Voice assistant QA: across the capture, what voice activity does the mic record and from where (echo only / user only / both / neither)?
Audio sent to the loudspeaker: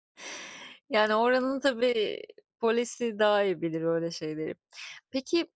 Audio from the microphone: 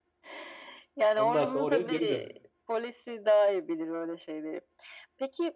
both